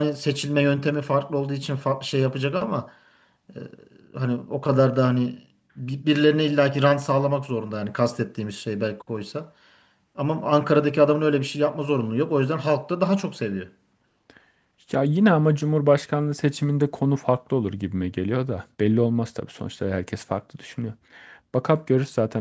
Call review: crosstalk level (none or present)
none